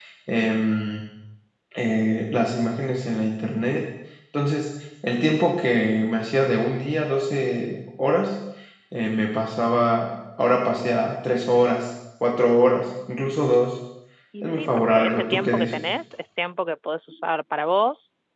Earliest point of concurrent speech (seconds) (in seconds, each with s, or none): 14.4 s